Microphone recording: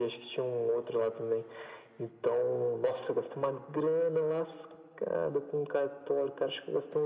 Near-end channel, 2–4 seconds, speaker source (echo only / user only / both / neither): echo only